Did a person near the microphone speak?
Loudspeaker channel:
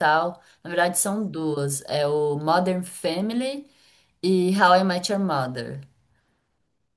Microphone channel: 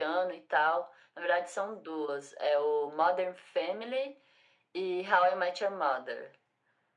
No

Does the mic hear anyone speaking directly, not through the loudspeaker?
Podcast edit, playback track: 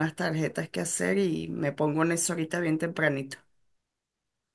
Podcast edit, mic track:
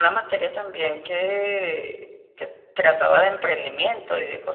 Yes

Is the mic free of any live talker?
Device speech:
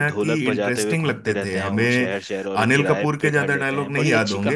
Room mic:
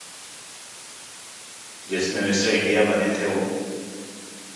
No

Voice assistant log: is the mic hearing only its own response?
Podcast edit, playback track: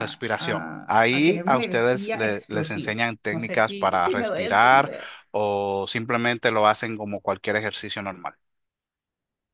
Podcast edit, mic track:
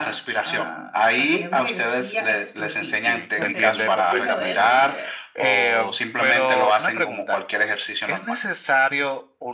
No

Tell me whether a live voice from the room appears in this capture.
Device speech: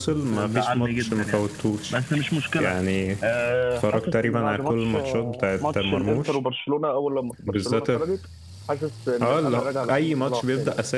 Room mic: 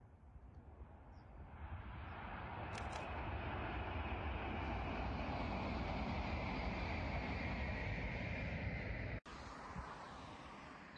No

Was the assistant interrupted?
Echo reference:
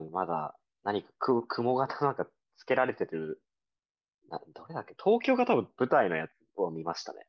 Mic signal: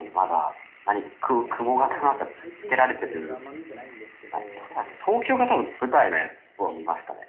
Yes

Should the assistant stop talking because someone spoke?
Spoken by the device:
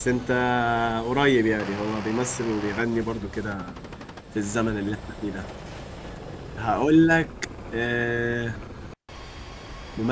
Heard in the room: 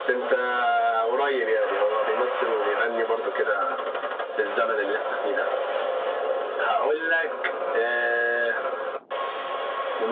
No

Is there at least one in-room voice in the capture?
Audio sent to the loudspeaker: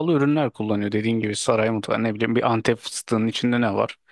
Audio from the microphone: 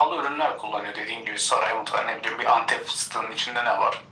No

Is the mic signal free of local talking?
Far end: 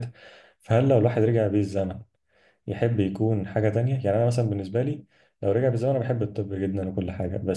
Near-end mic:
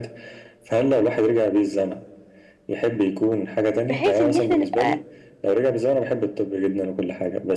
No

